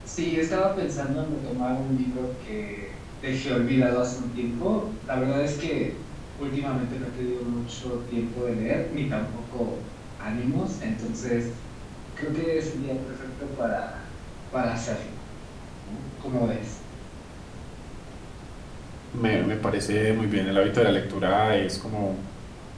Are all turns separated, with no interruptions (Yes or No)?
Yes